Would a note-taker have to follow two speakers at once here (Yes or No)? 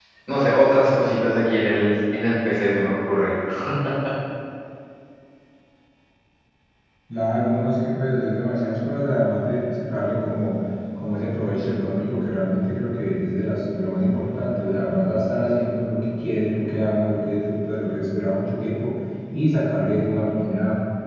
No